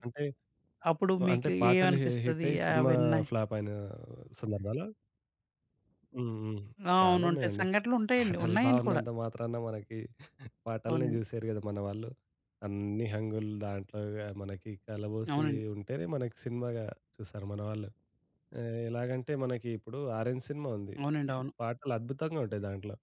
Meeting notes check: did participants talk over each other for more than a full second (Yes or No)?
Yes